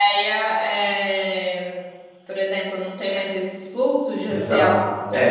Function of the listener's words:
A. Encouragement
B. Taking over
B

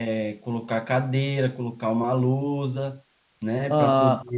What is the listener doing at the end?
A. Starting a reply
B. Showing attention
B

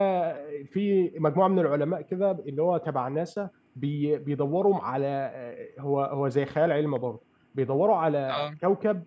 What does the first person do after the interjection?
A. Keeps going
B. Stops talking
A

